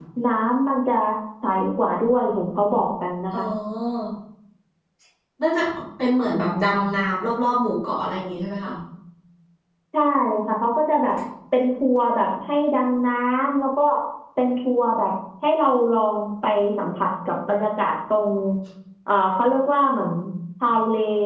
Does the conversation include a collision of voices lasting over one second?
No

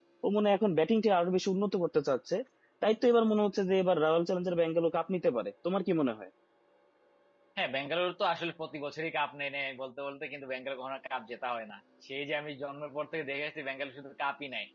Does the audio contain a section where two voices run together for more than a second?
No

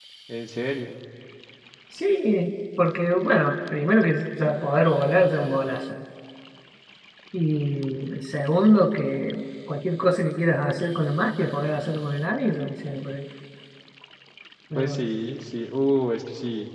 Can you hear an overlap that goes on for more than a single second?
No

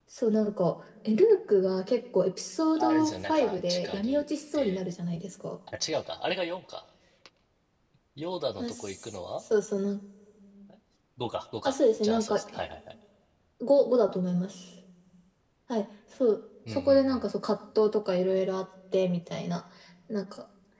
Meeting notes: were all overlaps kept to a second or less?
No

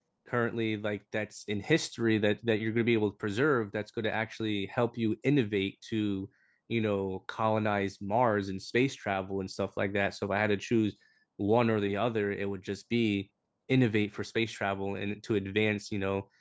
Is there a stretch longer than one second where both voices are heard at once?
No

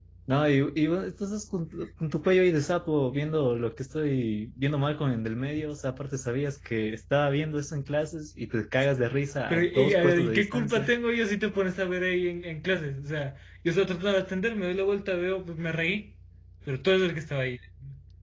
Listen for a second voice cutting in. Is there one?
Yes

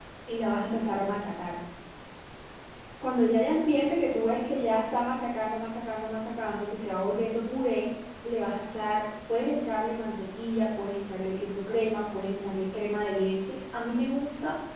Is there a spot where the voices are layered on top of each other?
No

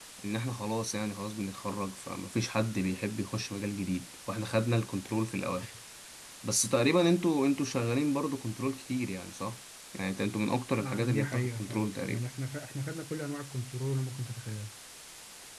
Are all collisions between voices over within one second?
No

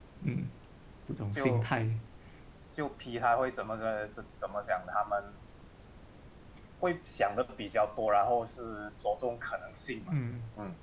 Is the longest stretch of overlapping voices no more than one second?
Yes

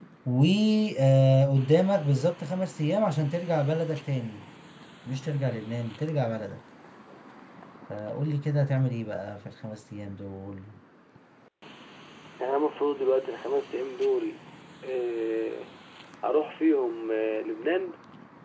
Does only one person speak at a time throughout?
Yes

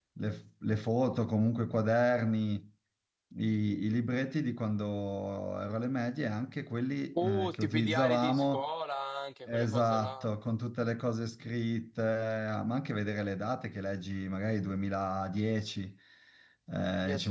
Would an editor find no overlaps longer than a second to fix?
No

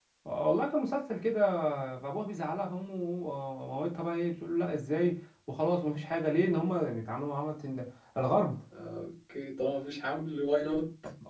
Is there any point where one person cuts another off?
No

